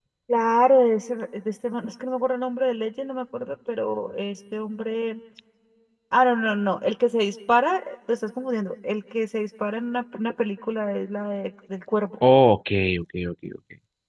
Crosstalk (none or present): none